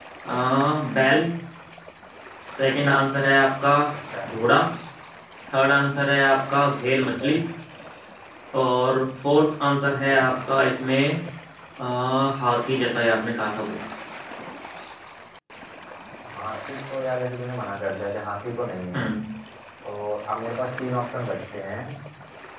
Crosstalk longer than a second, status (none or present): none